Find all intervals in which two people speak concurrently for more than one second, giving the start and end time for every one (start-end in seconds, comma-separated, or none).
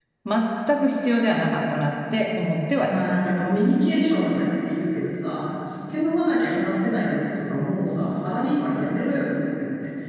none